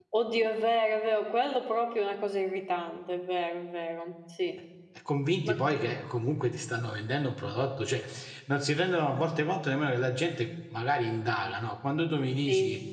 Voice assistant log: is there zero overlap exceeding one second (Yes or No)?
Yes